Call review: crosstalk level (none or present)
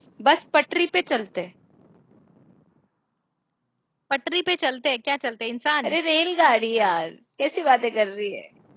none